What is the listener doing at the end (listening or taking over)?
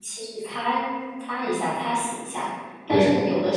listening